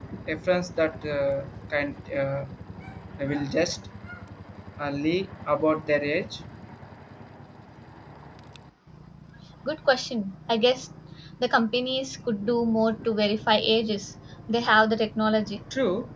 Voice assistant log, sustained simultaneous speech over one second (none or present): none